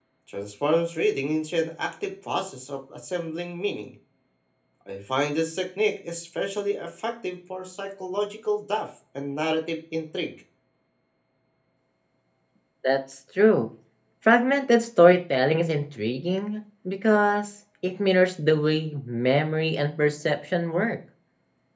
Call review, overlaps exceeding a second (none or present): none